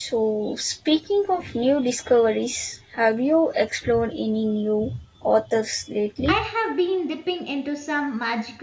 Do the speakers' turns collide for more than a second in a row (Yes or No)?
No